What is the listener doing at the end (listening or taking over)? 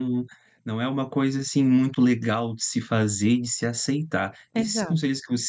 listening